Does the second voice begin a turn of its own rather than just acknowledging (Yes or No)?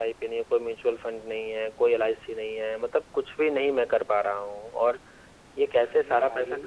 No